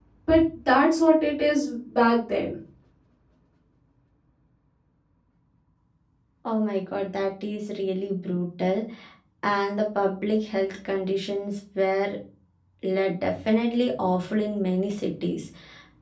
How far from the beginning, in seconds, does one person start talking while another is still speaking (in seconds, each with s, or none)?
none